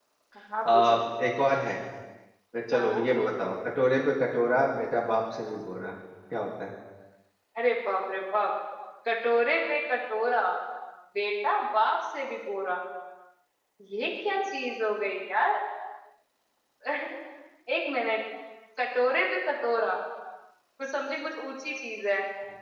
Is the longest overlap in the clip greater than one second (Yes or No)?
No